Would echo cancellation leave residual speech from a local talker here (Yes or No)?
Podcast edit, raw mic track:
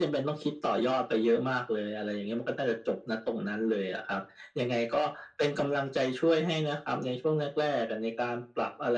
No